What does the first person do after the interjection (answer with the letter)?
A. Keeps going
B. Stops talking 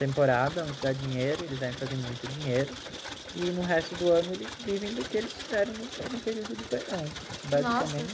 B